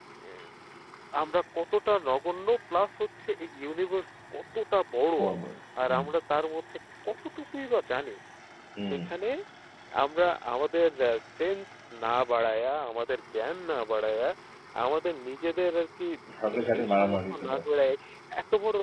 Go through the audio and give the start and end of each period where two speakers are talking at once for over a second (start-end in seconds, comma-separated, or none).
16.4-17.7